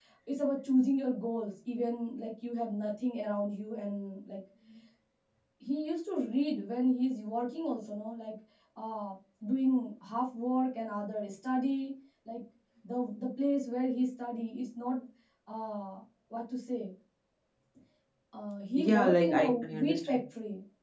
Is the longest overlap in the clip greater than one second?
Yes, from 18.8 s

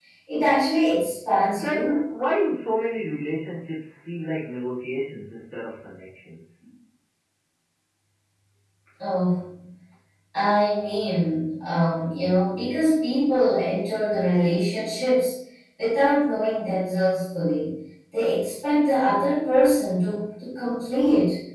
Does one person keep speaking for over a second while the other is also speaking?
No

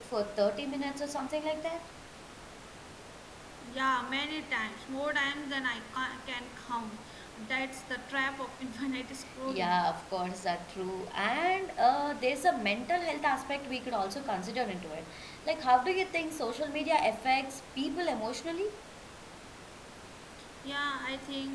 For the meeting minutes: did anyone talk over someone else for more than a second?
No

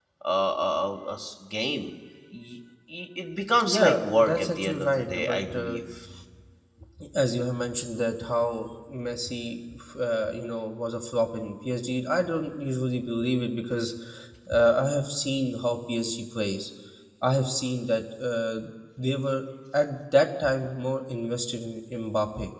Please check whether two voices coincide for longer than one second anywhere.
Yes, from 3.6 s

